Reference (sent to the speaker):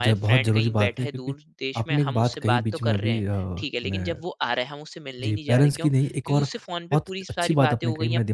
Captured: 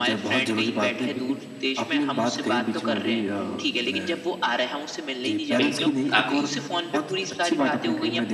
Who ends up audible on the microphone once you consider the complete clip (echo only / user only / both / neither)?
both